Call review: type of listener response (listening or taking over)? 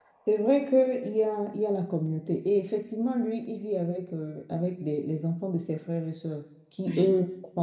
listening